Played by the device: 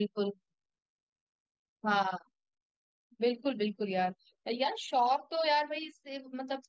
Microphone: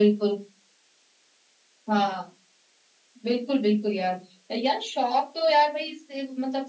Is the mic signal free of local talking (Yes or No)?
Yes